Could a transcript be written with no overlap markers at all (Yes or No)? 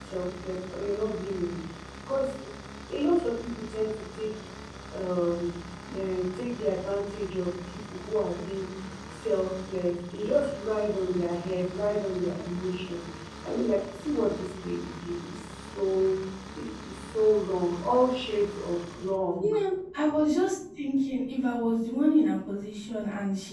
Yes